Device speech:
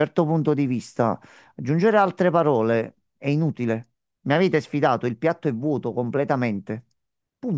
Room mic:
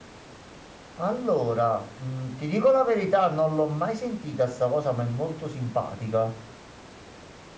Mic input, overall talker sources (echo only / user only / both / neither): user only